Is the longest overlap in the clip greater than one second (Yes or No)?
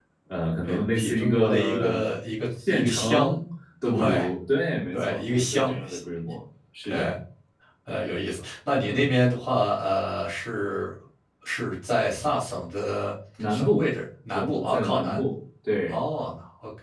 Yes